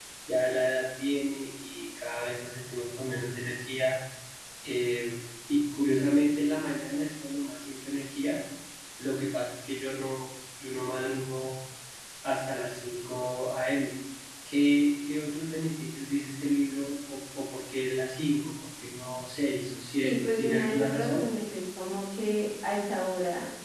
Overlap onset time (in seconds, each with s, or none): 20.0 s